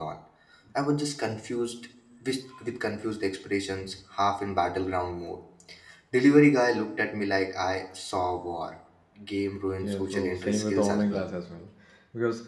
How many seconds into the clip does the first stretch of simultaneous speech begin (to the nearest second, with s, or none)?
10 s